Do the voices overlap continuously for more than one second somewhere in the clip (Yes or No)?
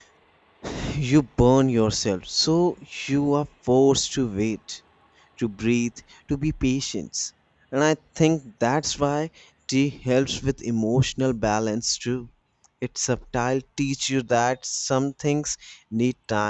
No